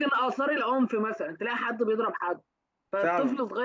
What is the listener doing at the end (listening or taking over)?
listening